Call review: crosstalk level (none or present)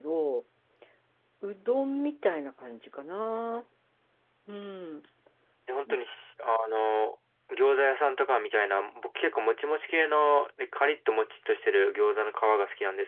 none